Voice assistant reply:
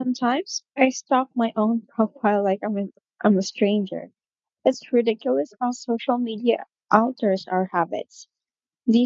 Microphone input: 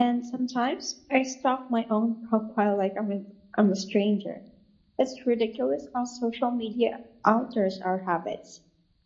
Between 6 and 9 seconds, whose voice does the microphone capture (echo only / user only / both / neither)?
echo only